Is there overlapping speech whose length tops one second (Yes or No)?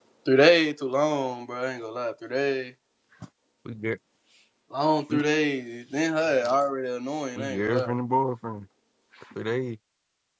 No